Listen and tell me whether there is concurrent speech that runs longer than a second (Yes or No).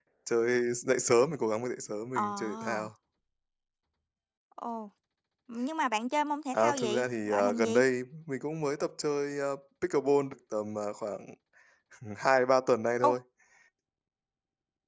Yes